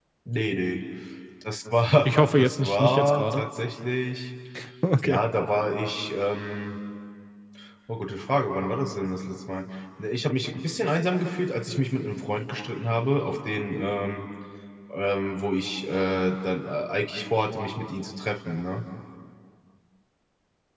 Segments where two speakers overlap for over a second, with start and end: 2.0-3.4

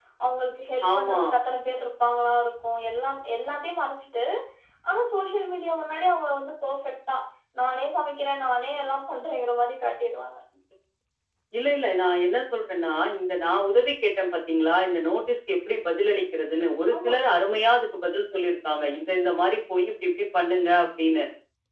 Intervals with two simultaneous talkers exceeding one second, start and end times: none

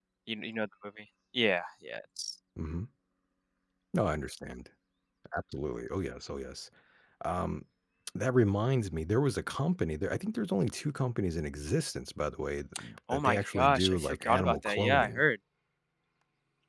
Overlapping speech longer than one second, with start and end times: 13.1-15.2

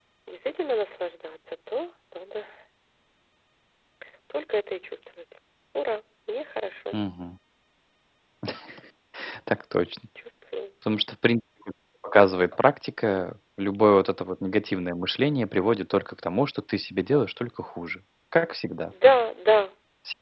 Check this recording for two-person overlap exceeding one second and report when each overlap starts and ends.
none

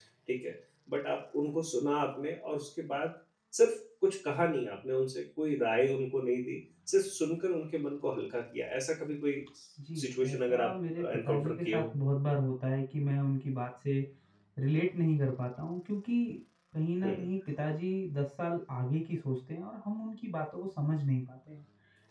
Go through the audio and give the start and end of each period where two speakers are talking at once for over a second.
9.9-11.8

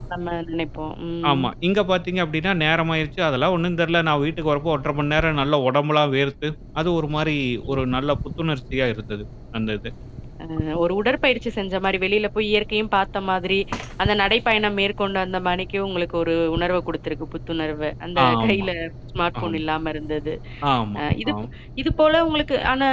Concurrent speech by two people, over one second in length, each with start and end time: none

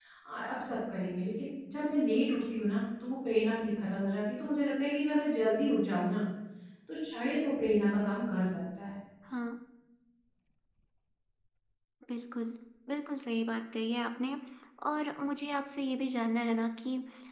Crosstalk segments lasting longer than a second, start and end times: none

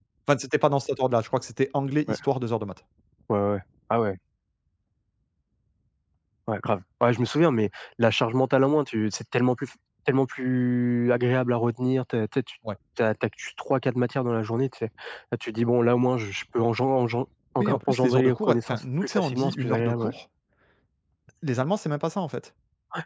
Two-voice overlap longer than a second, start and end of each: 17.6-20.1

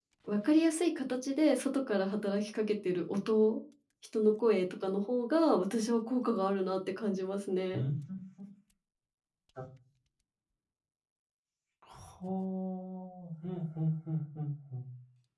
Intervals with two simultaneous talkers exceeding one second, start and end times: none

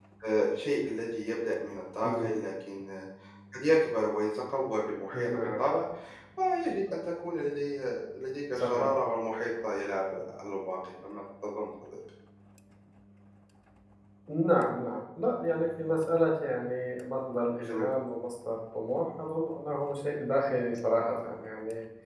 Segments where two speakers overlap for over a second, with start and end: none

